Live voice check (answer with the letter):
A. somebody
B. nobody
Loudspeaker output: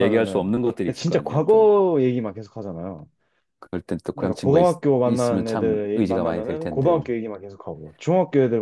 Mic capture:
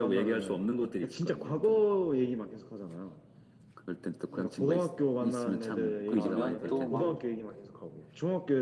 A